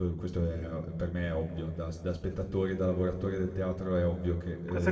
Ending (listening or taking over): taking over